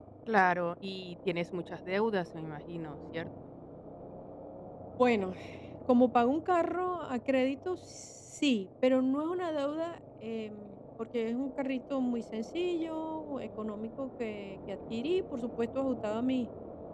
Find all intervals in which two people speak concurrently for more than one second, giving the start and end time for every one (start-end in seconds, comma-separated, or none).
none